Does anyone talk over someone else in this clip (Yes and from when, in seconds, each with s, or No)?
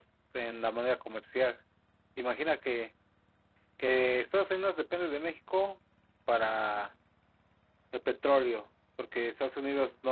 No